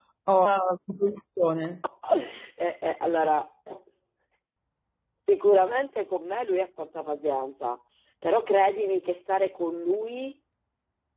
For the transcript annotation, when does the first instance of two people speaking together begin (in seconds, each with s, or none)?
none